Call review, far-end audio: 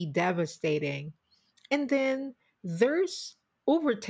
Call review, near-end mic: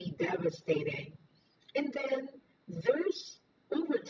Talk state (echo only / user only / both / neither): echo only